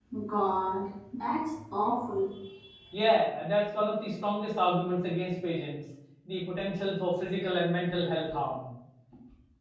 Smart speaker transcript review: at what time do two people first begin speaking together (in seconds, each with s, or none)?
none